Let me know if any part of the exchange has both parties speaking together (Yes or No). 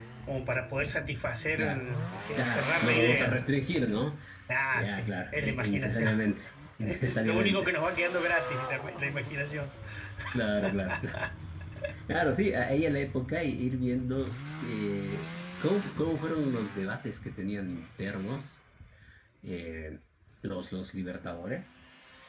Yes